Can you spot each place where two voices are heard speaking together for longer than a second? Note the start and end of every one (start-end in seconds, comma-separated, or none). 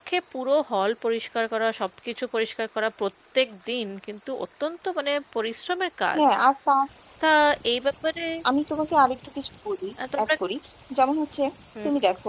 none